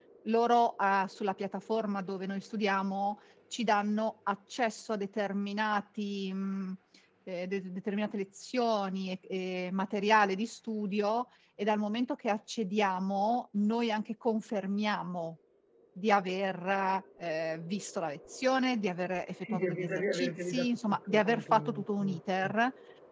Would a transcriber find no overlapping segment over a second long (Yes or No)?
No